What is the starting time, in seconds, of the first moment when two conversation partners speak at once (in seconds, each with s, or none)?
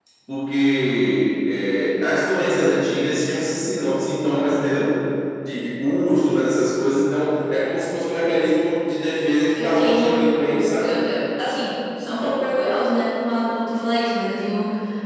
9.6 s